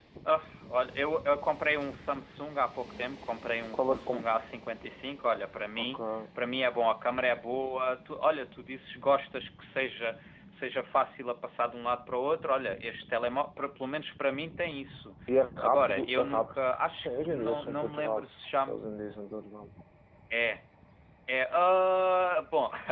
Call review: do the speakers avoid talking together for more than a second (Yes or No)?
No